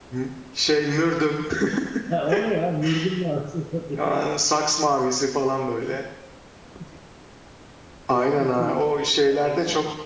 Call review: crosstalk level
present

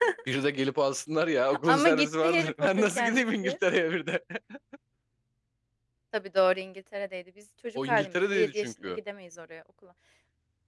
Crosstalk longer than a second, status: present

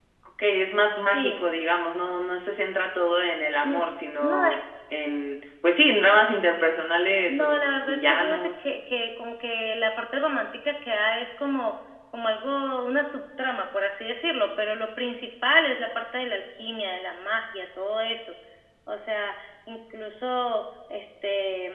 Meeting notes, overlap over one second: present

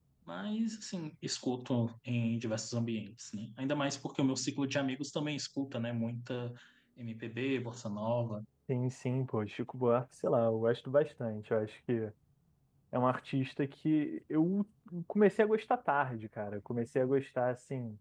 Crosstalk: none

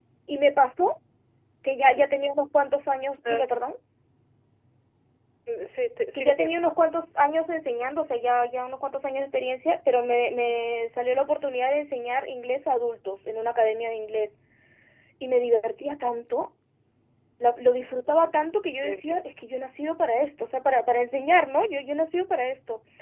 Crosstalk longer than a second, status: none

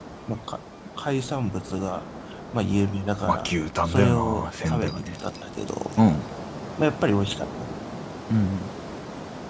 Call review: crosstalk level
present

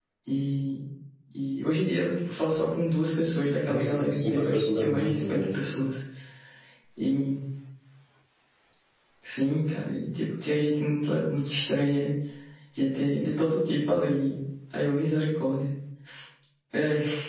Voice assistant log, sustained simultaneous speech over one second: present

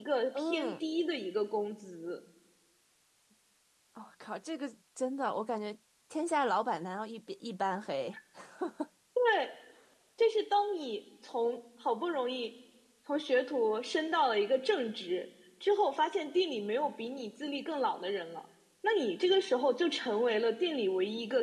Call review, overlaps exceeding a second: none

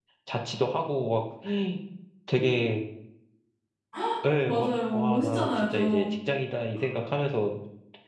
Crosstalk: present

